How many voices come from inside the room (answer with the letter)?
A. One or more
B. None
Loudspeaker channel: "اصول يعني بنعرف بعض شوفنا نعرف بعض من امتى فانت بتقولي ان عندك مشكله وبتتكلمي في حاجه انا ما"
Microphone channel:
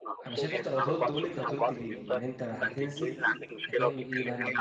A